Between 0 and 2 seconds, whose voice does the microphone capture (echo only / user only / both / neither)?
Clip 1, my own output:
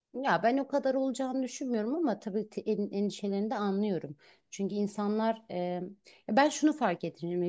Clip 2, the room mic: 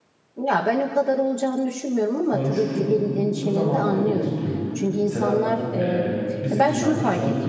echo only